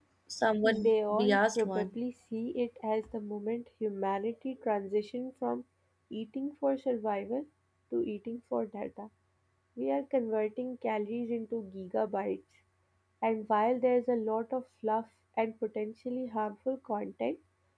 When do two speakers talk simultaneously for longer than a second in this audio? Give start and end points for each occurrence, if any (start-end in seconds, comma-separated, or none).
0.6-1.9